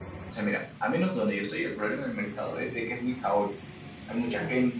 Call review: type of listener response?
listening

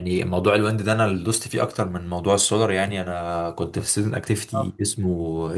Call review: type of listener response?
listening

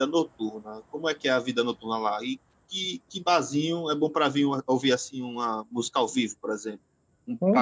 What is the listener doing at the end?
taking over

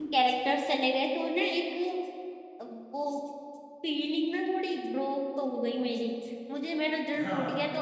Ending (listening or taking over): listening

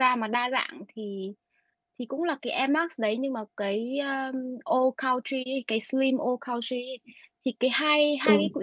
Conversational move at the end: listening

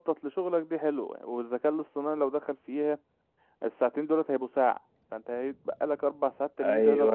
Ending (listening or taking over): taking over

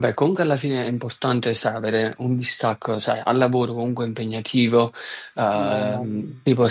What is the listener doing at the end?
listening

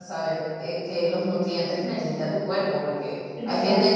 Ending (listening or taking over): listening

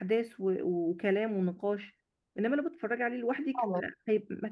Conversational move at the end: listening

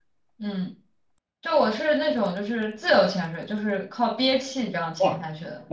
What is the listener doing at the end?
taking over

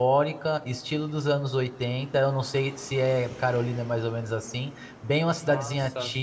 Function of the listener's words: listening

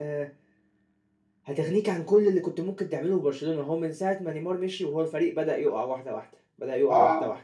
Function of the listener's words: listening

